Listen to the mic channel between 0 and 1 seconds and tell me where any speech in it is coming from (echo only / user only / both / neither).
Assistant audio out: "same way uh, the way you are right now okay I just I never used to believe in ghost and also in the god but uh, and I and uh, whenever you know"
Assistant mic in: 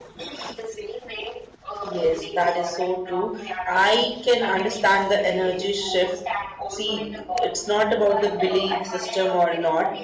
echo only